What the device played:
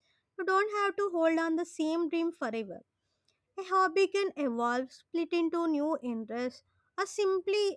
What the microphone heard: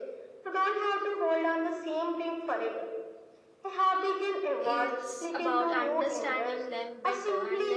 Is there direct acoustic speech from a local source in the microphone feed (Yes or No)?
Yes